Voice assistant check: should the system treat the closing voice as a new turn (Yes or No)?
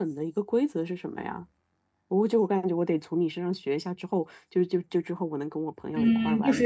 Yes